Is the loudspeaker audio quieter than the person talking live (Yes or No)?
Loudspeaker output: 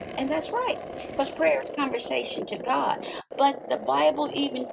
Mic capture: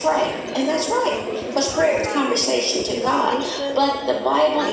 No